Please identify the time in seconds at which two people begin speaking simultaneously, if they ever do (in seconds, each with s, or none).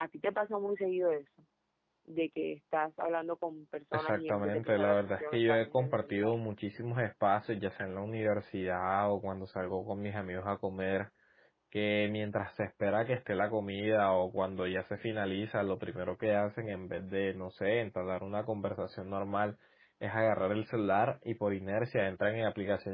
3.9 s